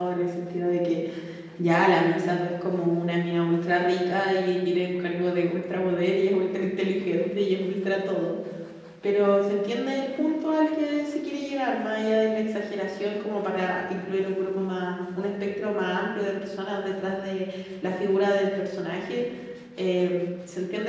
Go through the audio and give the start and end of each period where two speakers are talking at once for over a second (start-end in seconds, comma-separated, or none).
none